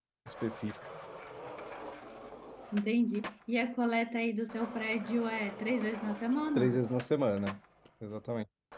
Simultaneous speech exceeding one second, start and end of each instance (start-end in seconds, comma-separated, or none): none